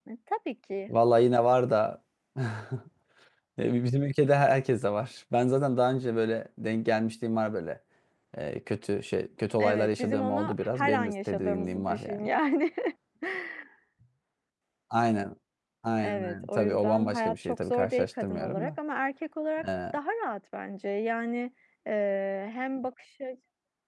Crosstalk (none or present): present